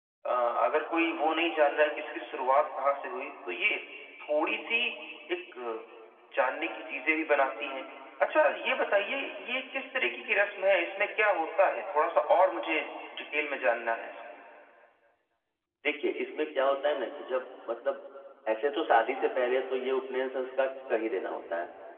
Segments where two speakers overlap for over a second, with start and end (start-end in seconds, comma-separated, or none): none